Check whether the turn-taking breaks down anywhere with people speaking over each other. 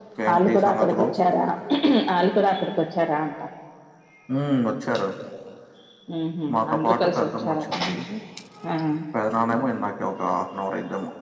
Yes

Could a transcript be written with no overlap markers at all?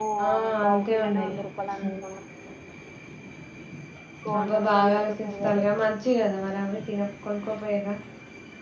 No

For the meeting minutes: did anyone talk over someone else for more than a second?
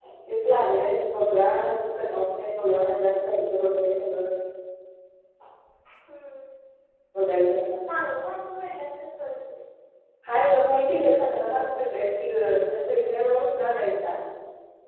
No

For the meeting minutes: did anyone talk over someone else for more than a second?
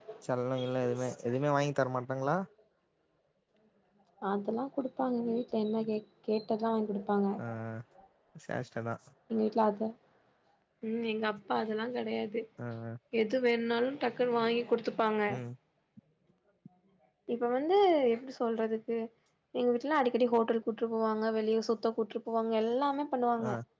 No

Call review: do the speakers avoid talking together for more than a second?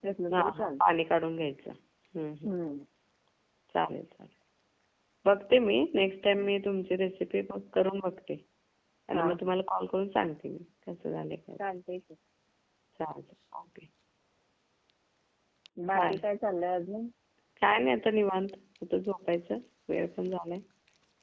Yes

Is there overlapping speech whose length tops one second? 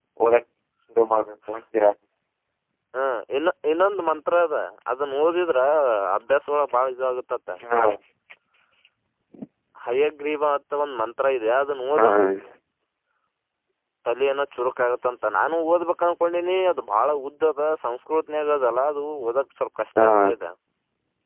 No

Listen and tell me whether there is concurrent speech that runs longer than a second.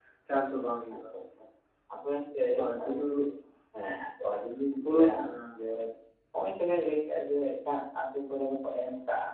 No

